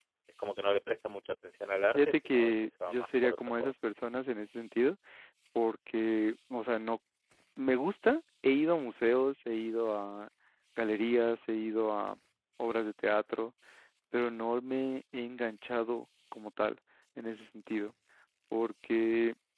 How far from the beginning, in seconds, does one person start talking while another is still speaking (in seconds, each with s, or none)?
1.9 s